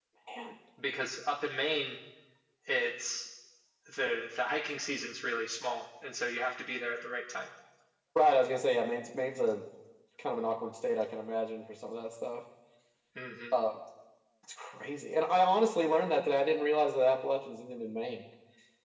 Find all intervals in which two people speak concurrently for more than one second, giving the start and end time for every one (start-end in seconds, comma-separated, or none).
none